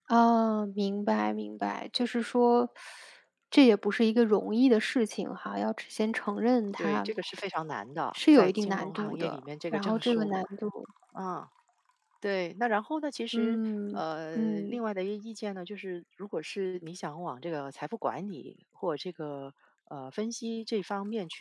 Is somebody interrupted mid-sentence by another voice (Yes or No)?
Yes